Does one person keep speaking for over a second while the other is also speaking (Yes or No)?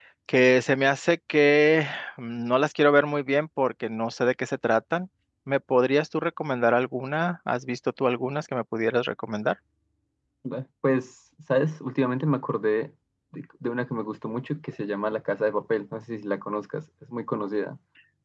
No